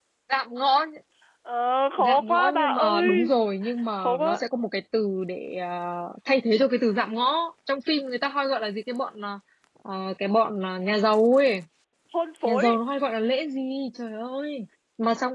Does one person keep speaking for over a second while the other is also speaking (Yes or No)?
Yes